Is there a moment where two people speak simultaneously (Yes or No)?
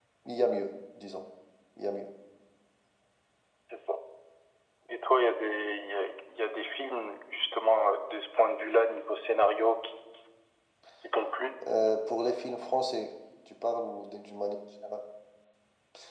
No